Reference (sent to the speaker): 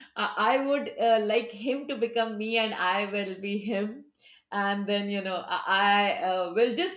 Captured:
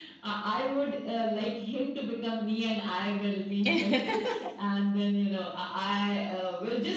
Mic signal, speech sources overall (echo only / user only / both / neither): both